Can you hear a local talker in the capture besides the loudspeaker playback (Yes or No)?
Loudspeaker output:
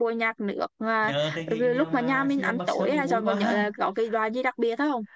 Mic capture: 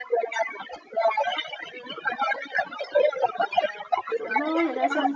Yes